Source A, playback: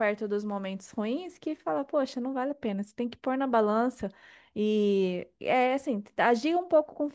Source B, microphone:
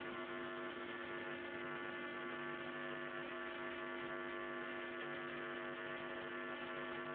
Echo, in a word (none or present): none